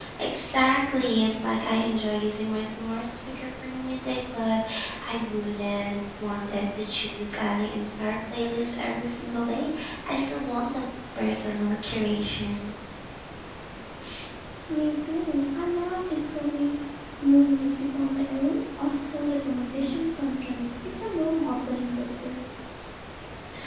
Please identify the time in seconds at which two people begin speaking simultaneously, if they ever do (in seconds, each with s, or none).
none